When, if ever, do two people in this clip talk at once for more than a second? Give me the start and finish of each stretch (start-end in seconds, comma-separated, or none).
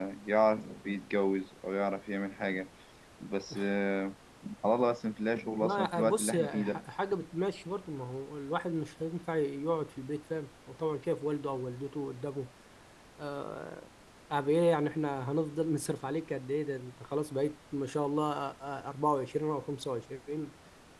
5.6-6.8